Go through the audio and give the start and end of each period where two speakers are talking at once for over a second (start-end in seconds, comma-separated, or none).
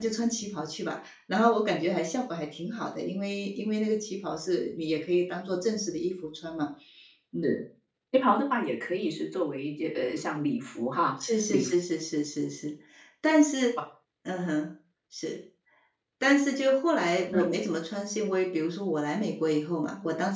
none